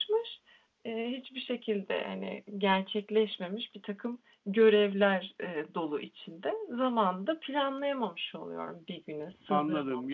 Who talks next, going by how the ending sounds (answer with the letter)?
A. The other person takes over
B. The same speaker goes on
A